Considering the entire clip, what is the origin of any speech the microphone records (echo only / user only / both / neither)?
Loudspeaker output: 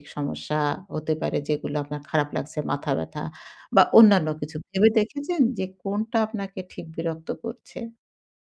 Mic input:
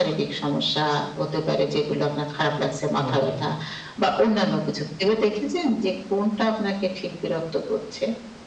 both